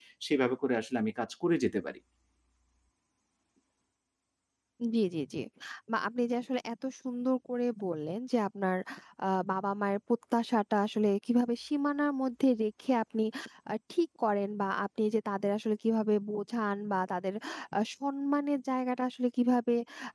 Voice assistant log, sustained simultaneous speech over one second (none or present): none